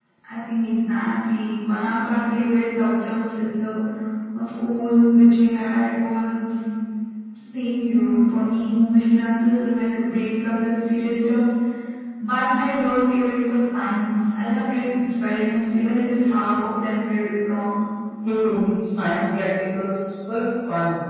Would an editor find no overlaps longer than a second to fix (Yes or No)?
Yes